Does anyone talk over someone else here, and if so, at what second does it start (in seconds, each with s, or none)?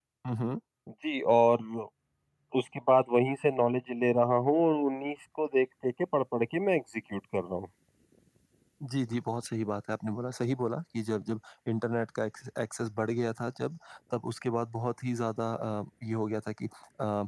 none